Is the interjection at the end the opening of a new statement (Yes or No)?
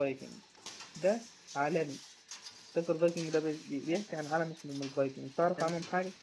Yes